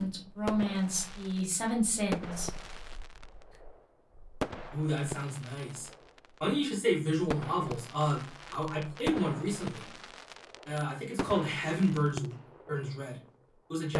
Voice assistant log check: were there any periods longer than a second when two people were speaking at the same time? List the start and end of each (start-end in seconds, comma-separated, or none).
none